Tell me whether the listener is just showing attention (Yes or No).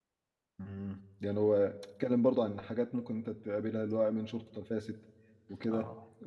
Yes